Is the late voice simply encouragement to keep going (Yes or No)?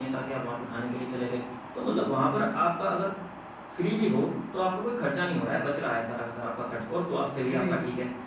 Yes